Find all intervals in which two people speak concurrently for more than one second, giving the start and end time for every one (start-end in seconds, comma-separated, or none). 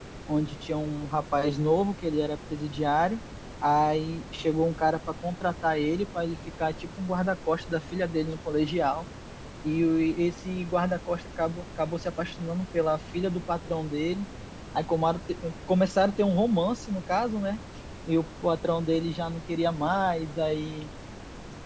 none